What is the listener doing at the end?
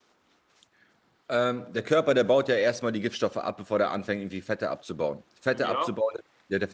listening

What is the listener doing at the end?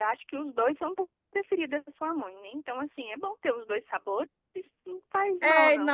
taking over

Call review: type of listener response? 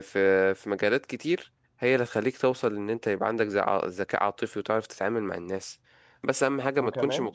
listening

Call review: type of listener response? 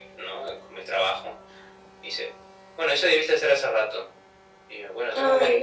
listening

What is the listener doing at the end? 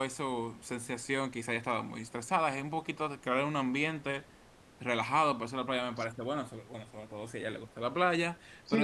taking over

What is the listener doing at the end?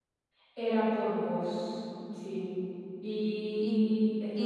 taking over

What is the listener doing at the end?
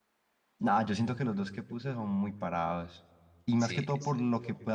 listening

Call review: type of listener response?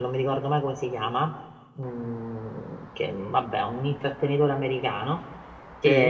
listening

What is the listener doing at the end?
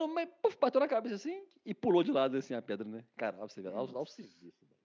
listening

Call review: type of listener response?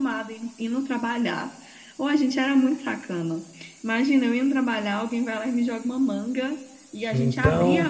listening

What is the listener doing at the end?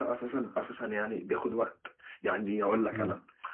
listening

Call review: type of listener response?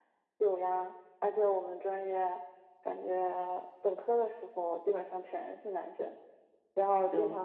listening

